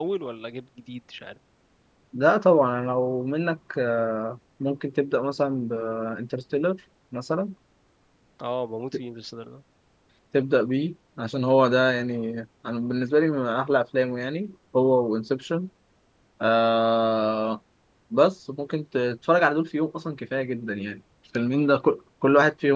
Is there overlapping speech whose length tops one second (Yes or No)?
No